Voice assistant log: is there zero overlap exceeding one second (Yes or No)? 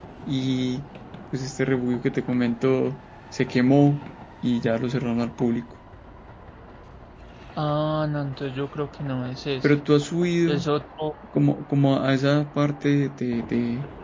Yes